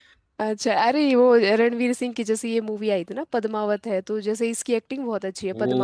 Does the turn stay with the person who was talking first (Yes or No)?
No